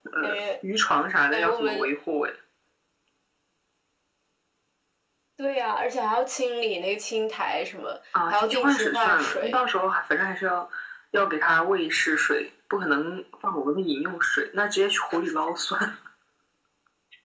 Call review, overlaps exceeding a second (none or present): present